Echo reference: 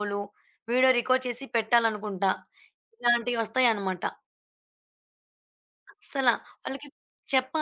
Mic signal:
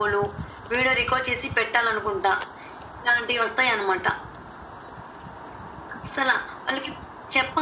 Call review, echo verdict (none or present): present